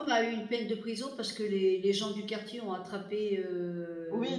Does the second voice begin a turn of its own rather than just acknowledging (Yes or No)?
Yes